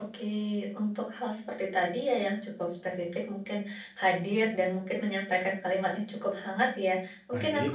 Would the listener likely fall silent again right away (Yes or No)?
Yes